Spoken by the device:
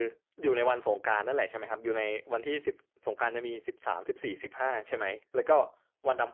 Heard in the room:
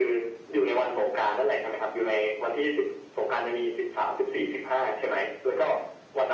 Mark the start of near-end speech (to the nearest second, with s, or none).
none